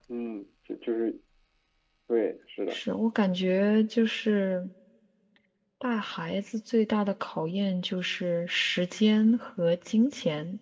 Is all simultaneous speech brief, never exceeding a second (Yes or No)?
Yes